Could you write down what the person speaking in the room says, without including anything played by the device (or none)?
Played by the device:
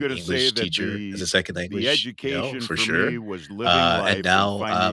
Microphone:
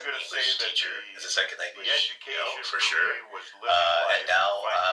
none